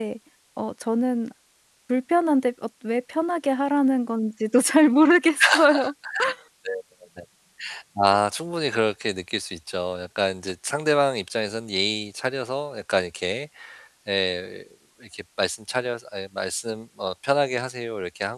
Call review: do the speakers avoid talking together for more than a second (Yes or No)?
Yes